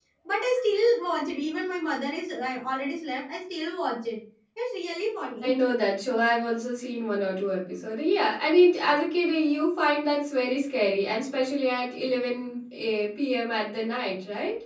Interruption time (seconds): none

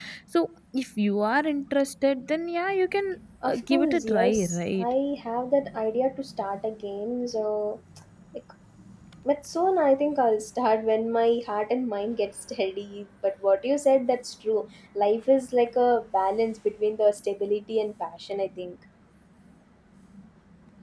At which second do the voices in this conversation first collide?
3 s

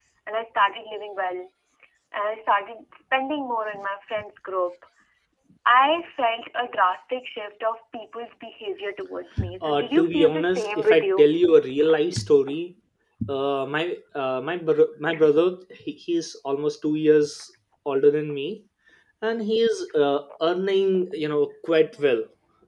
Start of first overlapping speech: 9 s

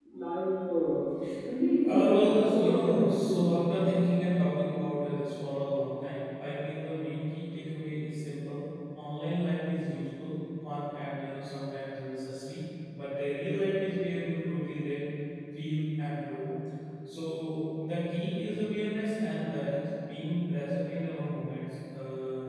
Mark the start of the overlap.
2 s

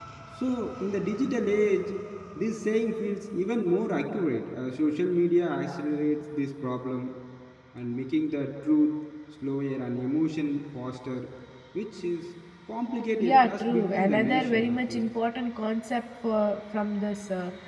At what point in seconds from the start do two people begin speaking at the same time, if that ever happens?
13 s

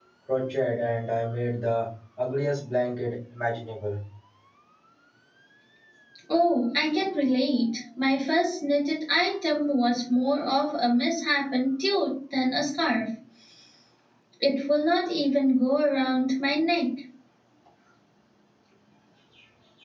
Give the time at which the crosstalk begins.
none

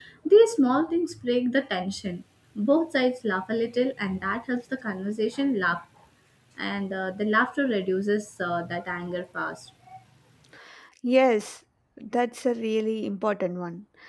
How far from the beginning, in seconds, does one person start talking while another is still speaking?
none

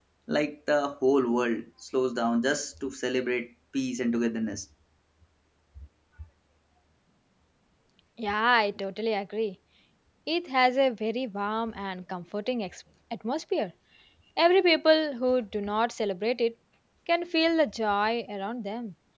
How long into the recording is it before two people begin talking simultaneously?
none

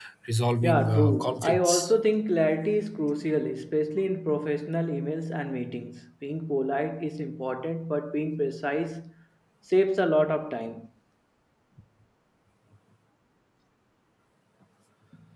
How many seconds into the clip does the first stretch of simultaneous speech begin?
1 s

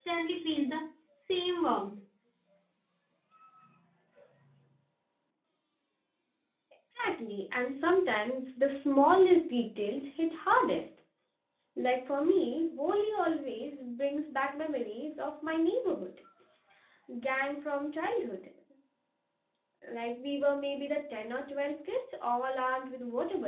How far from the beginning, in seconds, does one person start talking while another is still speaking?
none

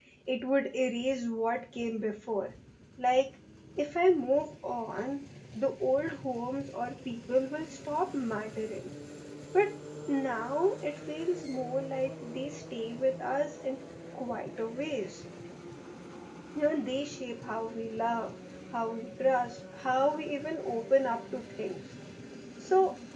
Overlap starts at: none

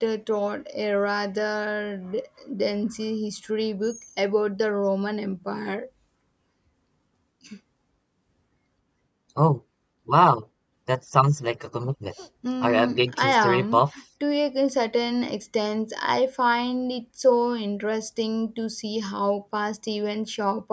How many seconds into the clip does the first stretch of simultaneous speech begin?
13 s

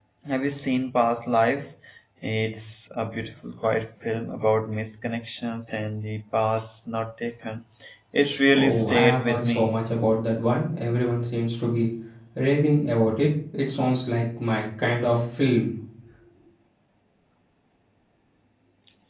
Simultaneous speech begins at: 9 s

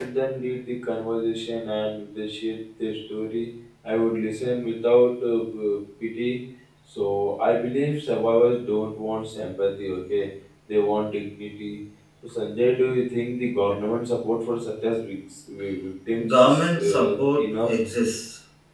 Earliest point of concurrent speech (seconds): 16 s

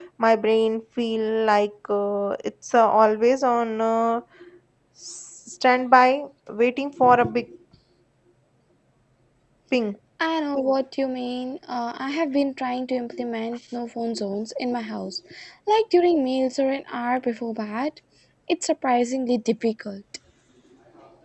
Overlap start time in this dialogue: none

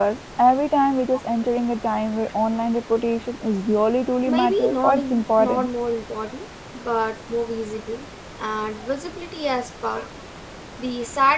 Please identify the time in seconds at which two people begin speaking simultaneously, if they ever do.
4 s

